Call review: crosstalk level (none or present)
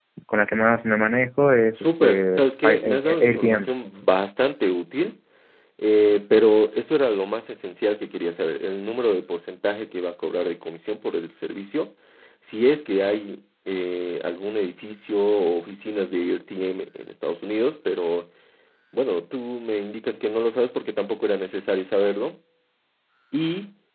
present